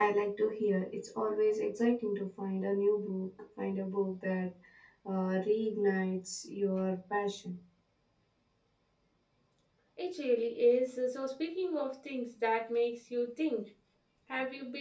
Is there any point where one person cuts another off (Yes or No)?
No